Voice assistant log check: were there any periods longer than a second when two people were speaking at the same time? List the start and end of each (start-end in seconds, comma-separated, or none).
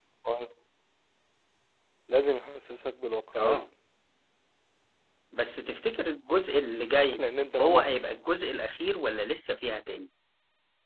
none